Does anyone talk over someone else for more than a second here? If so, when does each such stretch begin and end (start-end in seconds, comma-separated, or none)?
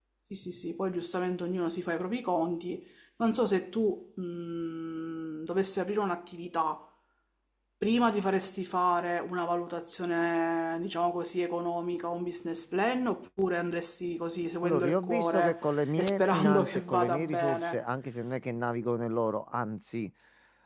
14.6-17.8